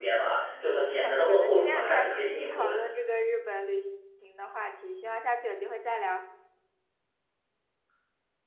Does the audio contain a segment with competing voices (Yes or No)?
Yes